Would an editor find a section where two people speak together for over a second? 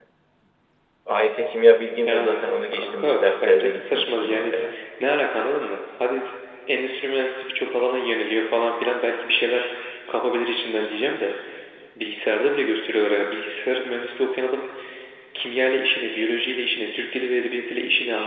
Yes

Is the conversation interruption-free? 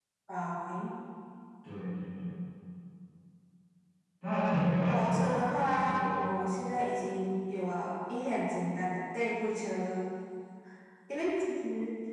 No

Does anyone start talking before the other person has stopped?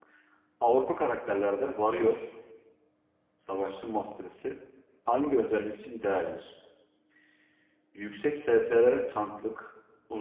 No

